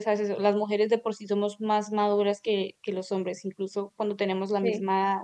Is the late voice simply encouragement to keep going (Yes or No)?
Yes